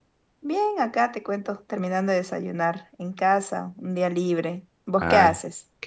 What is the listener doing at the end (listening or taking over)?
taking over